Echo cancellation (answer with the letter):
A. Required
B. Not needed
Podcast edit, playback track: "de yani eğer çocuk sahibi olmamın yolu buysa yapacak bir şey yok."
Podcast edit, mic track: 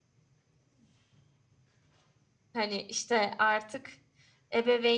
B